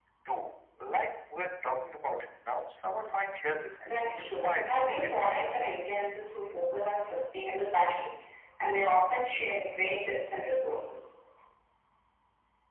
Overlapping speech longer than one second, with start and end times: 3.9-5.4

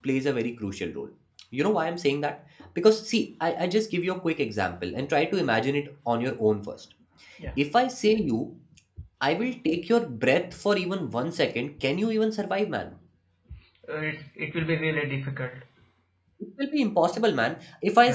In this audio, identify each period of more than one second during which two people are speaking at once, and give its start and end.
none

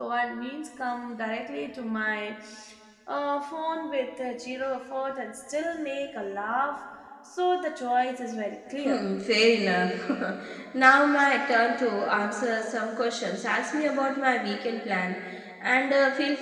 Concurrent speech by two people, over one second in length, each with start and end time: none

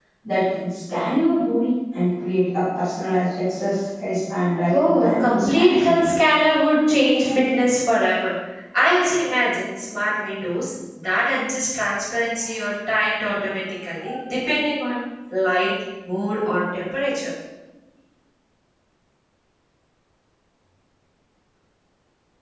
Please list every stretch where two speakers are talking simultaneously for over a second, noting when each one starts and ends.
4.7-6.0

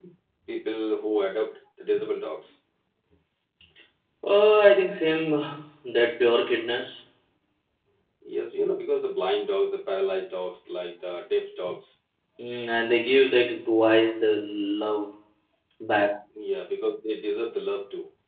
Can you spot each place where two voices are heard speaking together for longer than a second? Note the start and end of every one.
none

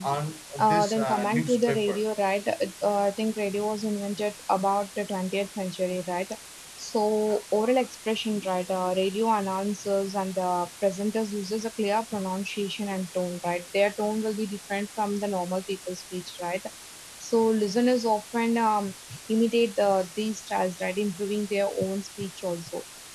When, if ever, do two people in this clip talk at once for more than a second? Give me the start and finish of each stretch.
0.6-2.0

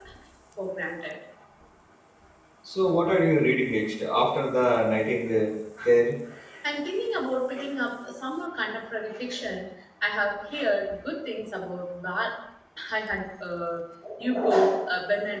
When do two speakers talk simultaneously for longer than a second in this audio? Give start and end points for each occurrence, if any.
none

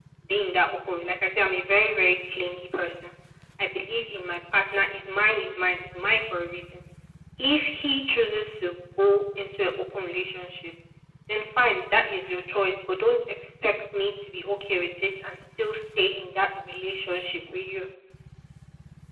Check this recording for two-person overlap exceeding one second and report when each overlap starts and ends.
none

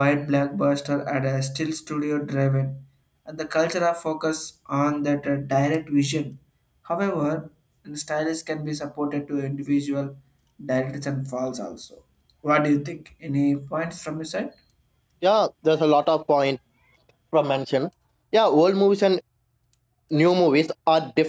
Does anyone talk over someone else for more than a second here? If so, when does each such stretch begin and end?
none

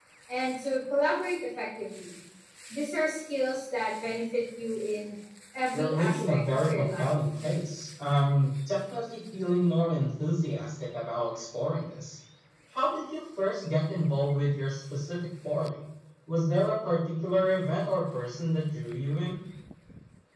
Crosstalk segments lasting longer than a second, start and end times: 5.7-7.2

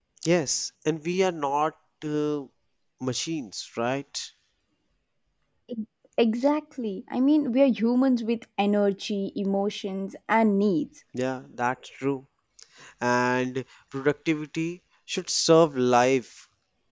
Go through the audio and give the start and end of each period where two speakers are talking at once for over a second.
none

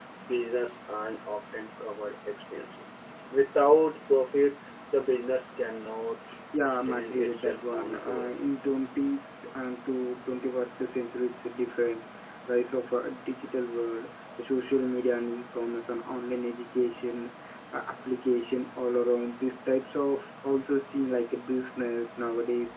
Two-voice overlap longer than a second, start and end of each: 6.6-8.3

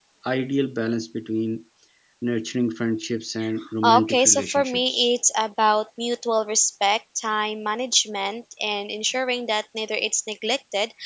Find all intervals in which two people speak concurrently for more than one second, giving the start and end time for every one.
3.8-5.1

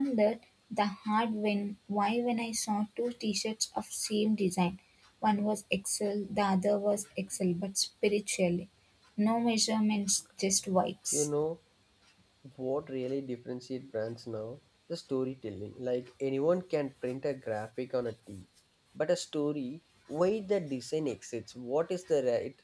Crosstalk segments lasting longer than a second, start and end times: none

